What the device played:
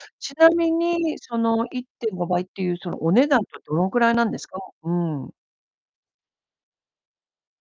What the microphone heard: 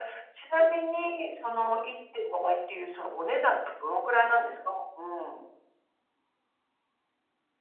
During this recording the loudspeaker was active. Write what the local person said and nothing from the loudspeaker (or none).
none